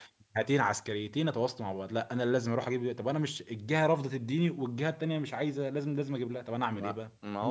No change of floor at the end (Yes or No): No